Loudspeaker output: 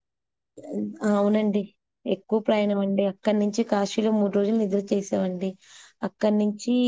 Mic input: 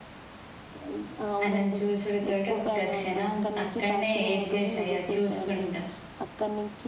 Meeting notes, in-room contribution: present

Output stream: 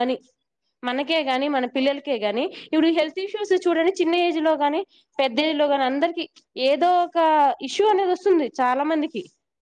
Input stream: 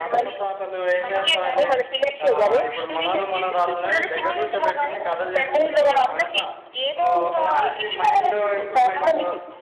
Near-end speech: present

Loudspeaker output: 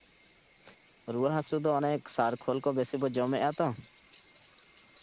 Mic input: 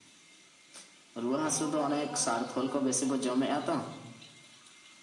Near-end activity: present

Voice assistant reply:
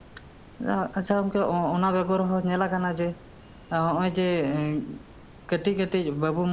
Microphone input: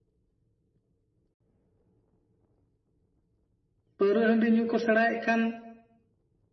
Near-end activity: present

